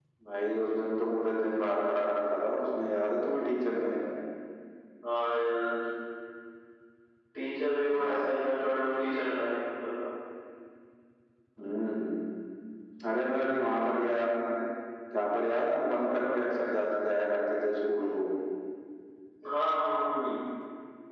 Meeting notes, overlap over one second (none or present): none